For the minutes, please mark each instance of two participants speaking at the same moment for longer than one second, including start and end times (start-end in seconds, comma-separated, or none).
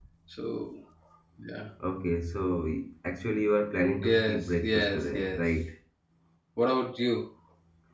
4.0-5.4